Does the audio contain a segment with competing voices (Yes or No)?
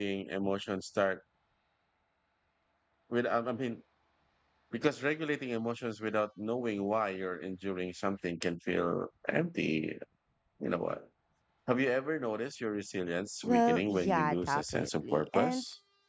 Yes